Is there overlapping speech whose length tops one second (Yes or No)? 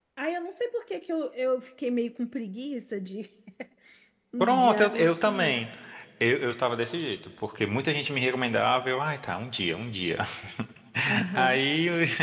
Yes